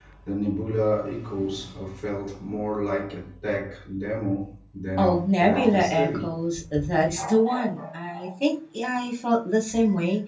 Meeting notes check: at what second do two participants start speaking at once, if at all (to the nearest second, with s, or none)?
5 s